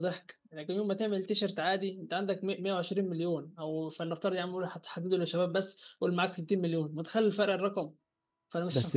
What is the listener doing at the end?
listening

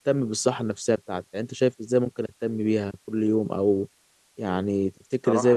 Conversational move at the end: taking over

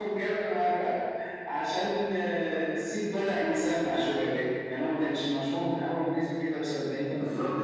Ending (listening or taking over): taking over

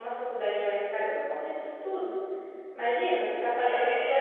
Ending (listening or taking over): taking over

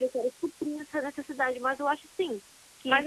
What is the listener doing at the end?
taking over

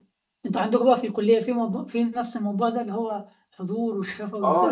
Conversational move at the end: taking over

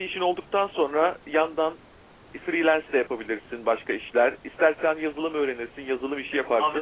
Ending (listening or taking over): taking over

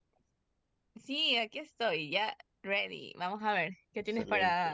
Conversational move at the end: taking over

